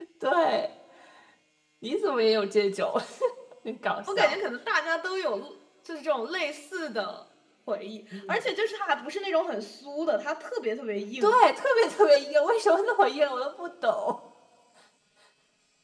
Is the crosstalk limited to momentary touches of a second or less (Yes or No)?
Yes